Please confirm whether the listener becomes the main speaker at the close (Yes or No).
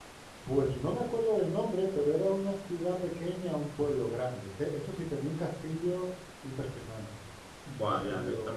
Yes